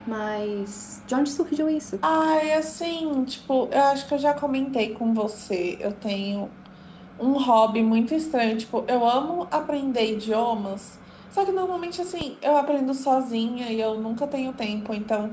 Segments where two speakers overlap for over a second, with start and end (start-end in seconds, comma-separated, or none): none